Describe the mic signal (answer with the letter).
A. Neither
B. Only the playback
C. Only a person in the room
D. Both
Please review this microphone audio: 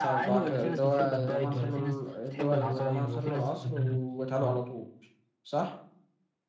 D